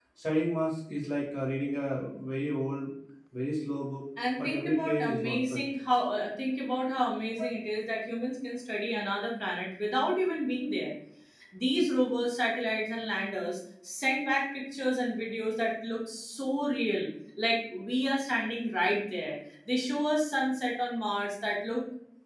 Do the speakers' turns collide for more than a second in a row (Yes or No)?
Yes